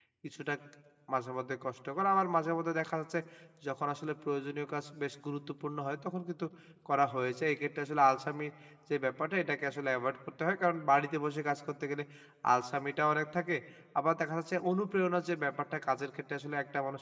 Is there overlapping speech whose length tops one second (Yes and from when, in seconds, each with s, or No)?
No